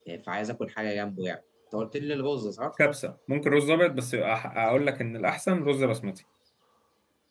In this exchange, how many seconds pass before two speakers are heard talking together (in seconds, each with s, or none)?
none